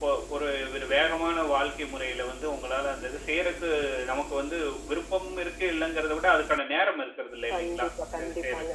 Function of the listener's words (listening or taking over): taking over